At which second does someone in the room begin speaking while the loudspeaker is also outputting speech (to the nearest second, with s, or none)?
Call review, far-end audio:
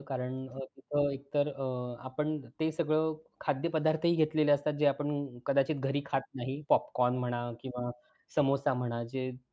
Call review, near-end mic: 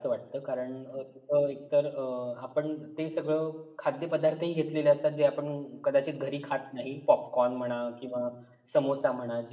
none